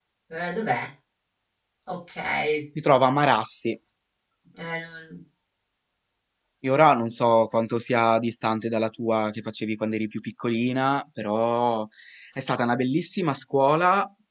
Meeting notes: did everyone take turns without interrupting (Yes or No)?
Yes